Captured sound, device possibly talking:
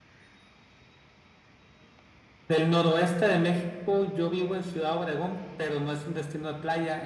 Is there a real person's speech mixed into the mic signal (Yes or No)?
Yes